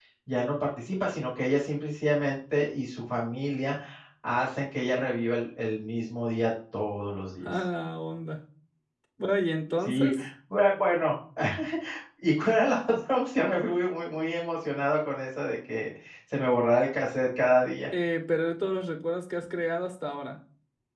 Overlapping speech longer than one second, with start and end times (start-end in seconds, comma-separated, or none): none